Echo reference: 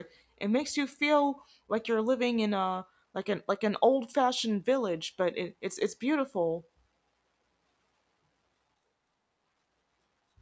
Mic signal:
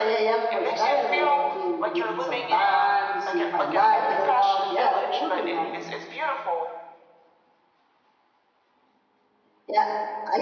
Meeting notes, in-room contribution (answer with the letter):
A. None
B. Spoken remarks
B